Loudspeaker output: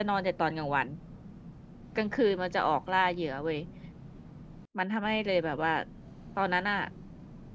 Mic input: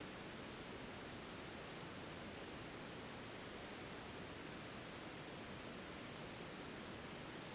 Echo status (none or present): none